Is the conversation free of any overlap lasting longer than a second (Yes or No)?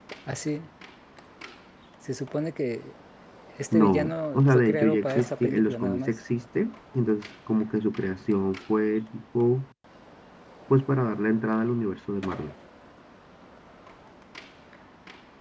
No